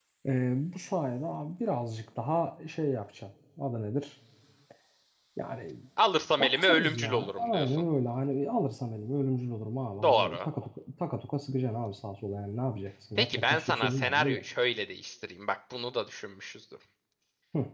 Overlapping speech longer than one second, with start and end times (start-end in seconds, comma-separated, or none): 6.4-7.8, 13.2-14.4